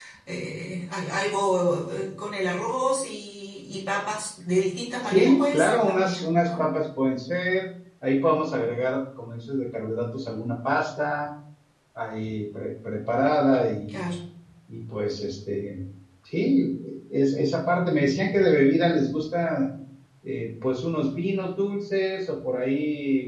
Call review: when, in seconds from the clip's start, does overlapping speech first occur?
5.0 s

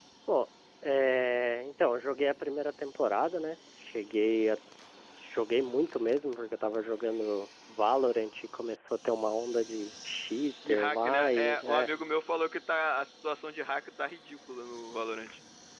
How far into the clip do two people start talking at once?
10.7 s

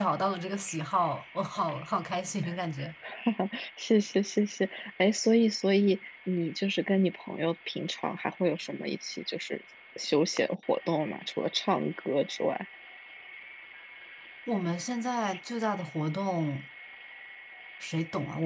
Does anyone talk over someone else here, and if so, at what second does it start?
none

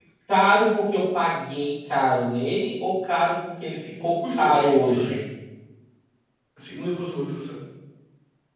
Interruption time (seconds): 3.6 s

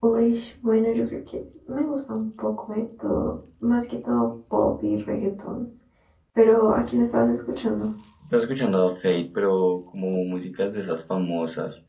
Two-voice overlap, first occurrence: none

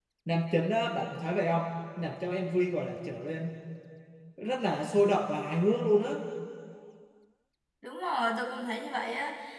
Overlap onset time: none

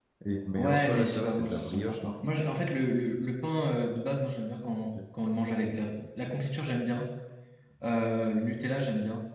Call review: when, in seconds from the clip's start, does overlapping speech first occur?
0.6 s

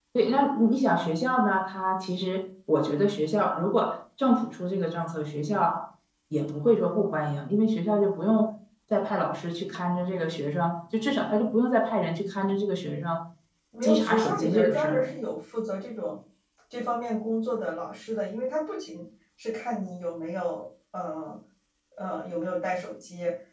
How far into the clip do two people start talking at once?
13.8 s

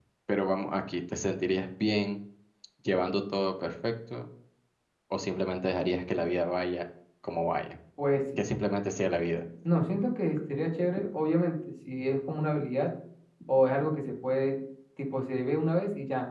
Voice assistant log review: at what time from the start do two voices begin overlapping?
none

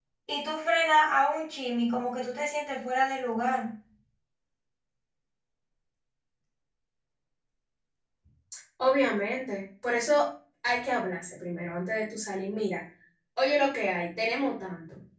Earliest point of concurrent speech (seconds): none

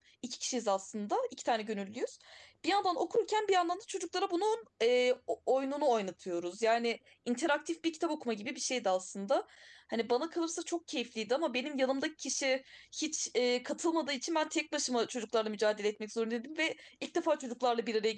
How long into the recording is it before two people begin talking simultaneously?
none

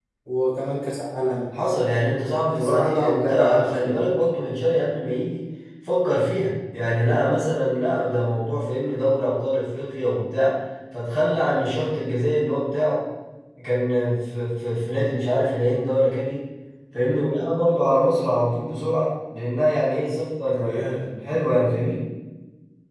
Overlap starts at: 2.5 s

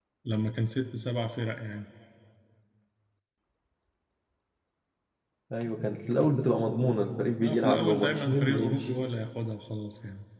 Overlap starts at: 7.4 s

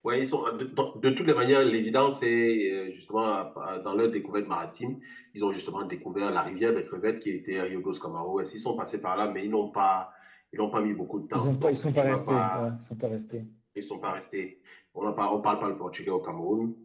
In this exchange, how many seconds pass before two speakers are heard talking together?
11.3 s

